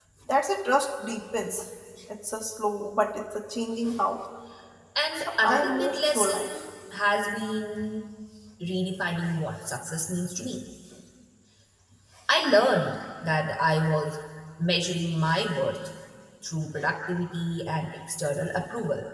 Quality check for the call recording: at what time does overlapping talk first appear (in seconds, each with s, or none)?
5.1 s